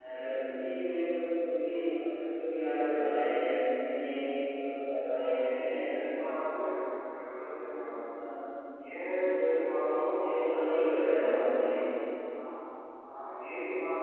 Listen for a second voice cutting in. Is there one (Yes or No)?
Yes